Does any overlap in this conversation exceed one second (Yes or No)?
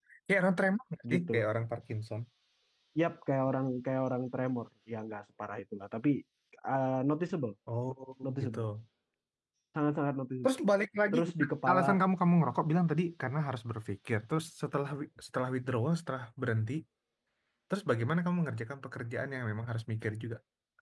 No